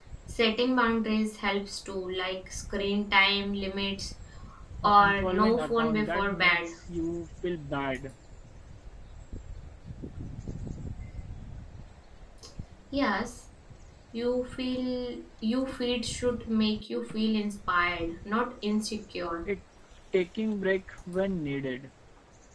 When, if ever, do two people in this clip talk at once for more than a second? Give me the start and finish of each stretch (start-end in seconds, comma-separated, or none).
4.8-6.7